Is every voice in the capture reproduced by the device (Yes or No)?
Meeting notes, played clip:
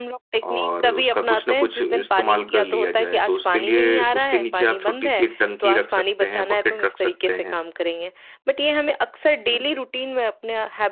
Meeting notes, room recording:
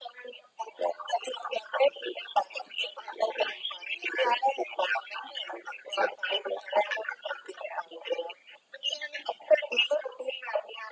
Yes